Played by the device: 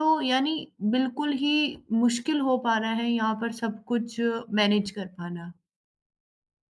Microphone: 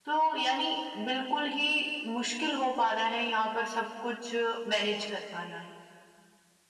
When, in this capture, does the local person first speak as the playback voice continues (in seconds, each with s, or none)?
none